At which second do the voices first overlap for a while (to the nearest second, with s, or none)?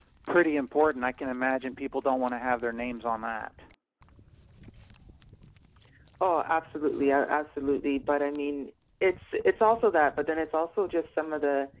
none